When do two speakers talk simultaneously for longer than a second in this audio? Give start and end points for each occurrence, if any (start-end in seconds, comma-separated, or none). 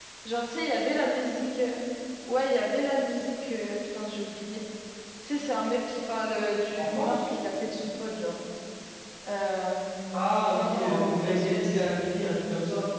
10.6-11.9